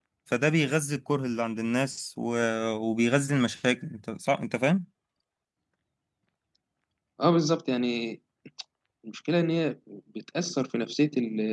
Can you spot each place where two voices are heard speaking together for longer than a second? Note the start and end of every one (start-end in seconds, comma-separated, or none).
none